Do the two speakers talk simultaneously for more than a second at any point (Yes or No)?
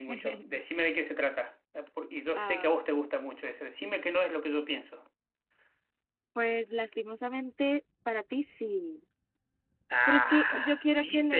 Yes